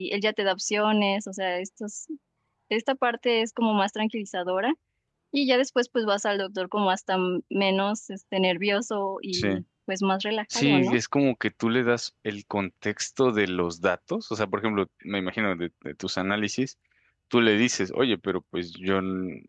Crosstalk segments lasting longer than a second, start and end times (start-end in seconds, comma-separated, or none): none